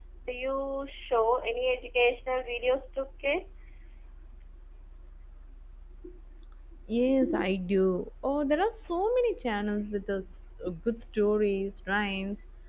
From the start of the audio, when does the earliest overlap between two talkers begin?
none

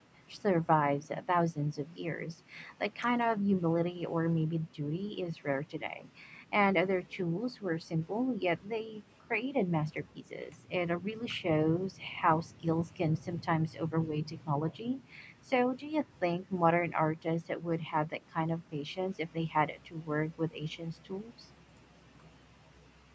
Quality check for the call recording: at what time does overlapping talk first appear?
none

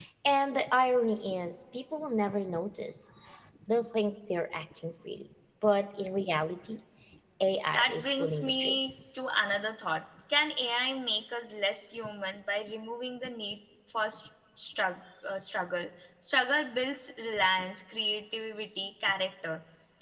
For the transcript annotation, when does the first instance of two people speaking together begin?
8 s

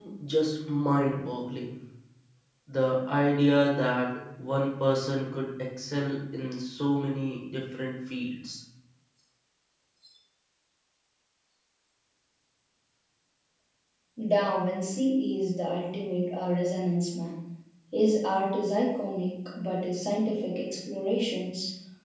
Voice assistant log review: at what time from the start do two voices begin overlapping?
none

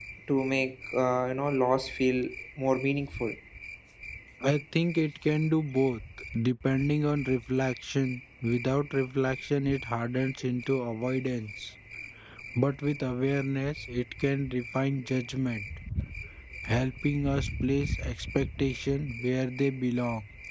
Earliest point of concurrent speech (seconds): none

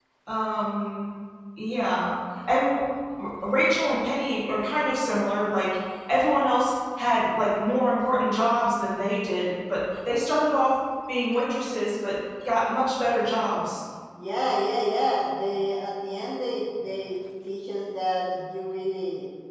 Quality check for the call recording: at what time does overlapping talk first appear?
none

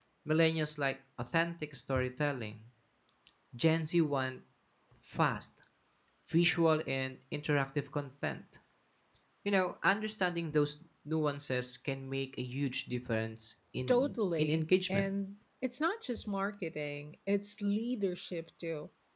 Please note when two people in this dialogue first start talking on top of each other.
14 s

